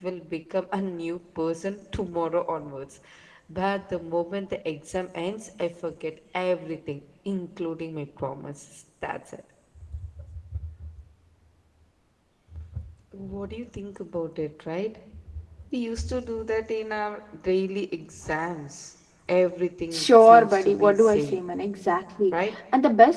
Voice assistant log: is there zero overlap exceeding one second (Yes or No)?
No